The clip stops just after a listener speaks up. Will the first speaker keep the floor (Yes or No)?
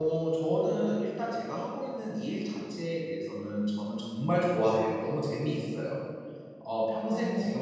Yes